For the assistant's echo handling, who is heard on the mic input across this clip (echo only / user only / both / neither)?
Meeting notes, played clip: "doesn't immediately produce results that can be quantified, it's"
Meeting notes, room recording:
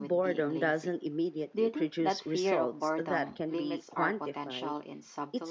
both